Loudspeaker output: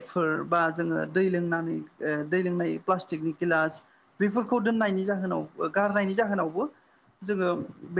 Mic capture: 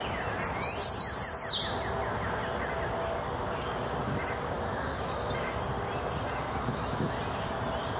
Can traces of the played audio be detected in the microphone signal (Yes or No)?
No